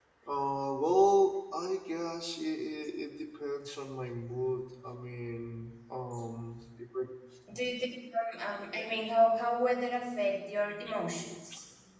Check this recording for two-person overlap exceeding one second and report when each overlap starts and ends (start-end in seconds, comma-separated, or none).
none